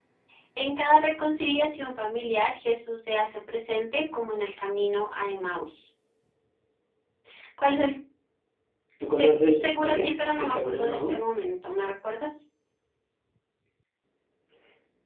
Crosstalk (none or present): present